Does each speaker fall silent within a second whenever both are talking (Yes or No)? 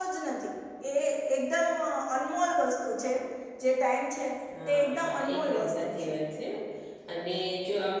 No